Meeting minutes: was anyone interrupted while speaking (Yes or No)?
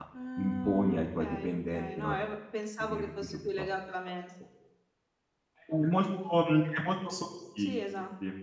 Yes